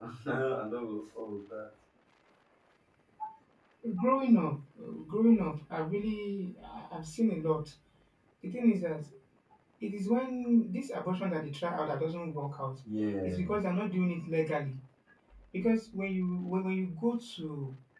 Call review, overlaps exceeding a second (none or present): none